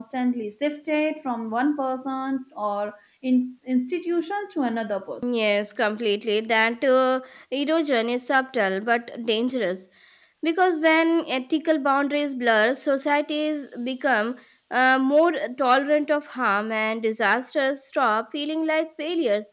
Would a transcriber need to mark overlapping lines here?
No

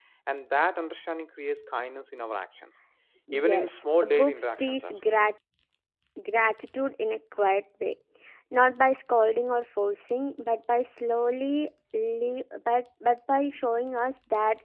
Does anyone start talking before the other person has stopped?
Yes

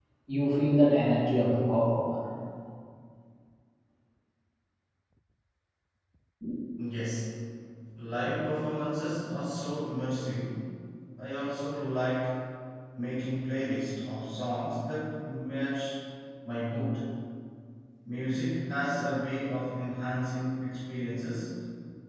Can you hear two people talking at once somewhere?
No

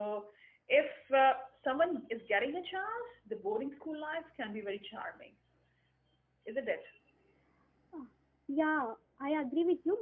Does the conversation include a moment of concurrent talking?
No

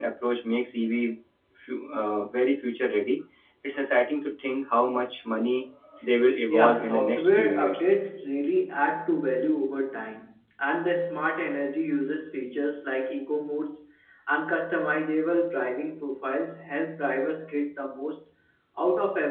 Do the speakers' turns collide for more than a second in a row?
Yes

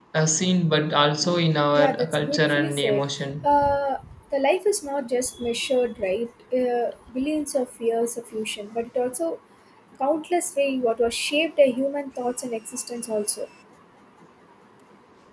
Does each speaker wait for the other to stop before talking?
No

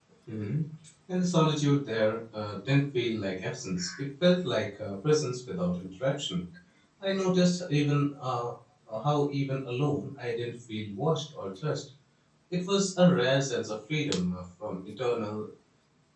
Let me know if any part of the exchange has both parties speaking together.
No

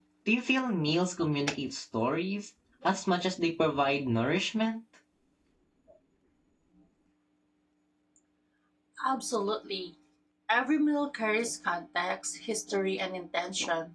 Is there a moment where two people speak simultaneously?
No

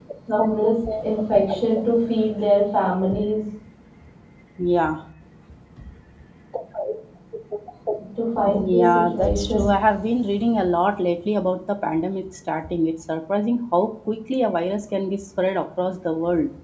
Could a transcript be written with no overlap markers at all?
No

